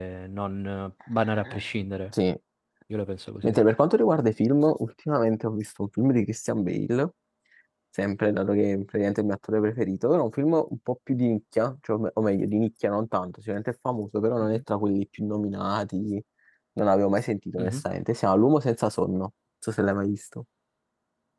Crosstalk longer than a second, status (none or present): none